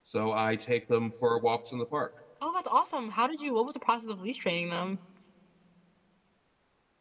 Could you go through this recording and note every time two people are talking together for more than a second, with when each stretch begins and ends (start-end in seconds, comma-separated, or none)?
none